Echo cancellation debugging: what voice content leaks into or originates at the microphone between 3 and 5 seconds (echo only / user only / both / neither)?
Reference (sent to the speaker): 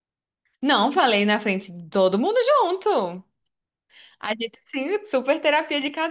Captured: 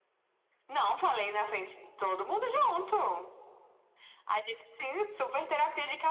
echo only